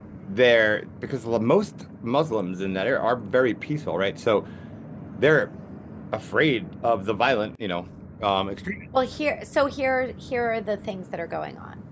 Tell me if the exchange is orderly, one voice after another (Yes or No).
Yes